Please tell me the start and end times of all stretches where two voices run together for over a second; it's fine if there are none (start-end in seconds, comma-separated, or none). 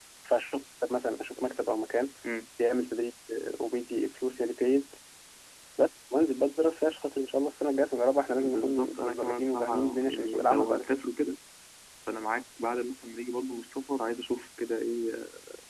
8.4-11.0